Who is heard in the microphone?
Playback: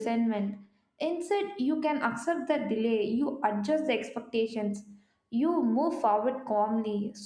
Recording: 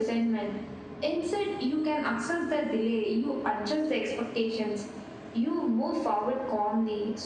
echo only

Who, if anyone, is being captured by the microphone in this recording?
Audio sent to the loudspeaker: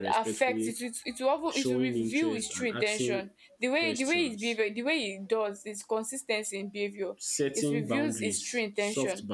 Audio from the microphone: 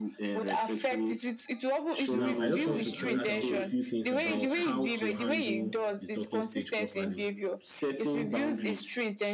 both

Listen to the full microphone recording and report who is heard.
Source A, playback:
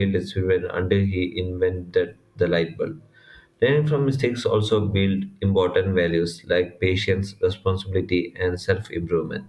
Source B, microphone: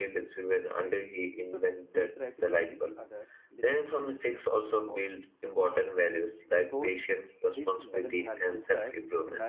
both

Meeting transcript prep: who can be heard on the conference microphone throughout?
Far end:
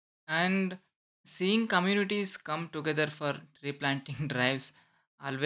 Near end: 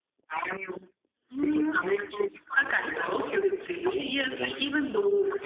both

